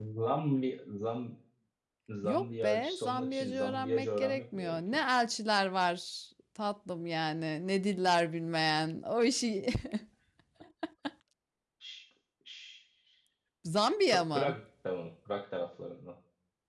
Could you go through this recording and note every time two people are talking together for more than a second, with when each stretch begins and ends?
2.2-5.0

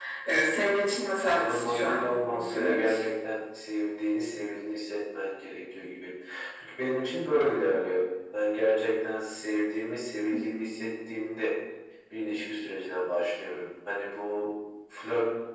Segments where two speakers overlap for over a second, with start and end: 0.8-2.8

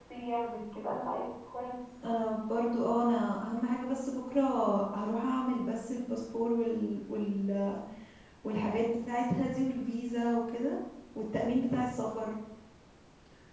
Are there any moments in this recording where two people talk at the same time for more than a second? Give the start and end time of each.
none

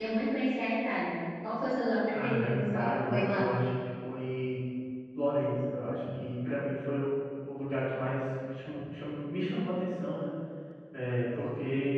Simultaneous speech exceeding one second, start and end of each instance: 2.1-3.5

